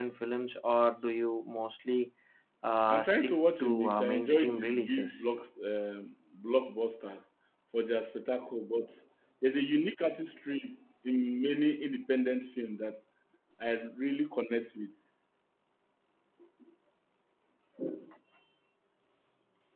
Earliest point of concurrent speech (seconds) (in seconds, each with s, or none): 2.9 s